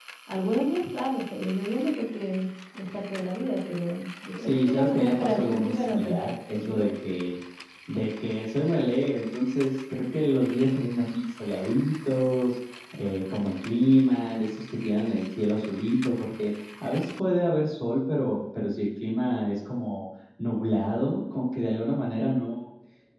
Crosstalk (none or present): present